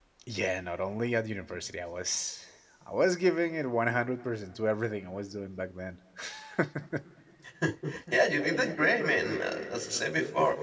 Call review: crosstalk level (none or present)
none